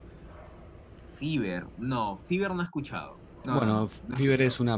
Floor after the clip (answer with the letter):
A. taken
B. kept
A